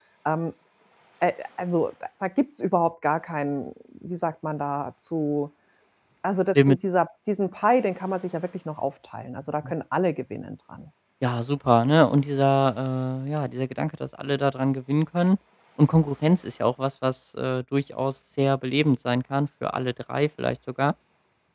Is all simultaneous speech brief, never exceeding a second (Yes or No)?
Yes